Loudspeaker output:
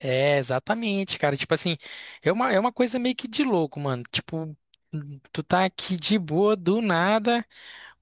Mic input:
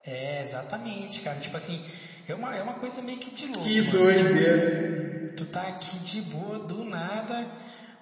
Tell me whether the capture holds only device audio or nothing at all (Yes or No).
No